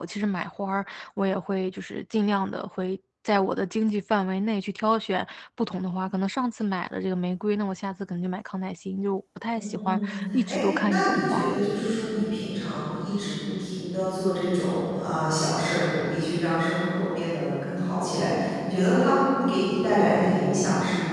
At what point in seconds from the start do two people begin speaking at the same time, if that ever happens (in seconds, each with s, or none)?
9.6 s